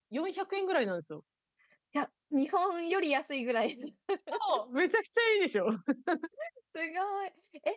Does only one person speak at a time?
Yes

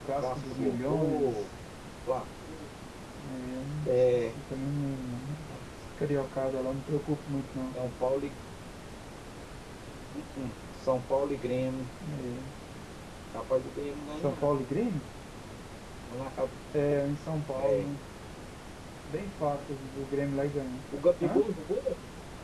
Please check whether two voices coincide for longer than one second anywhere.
Yes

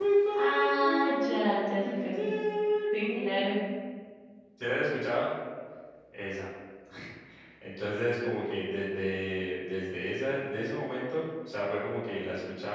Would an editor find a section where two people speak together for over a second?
Yes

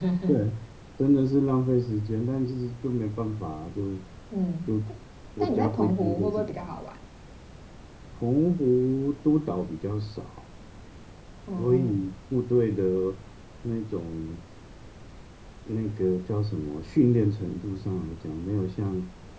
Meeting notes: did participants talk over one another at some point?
Yes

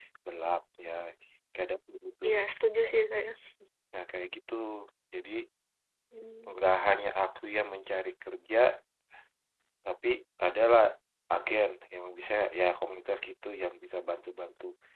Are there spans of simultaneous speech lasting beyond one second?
No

